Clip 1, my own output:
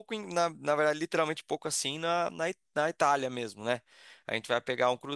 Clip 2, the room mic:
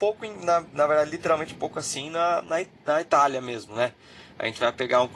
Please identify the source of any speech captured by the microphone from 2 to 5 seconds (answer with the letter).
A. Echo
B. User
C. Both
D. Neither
A